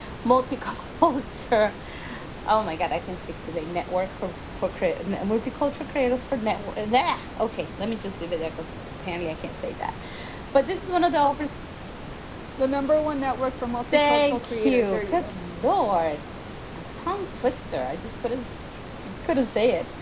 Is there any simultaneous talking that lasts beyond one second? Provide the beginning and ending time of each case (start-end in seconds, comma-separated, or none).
13.9-15.4